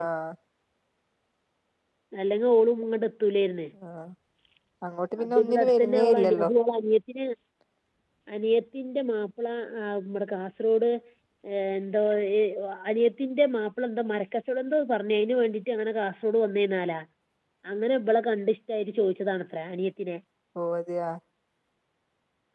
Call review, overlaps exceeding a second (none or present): present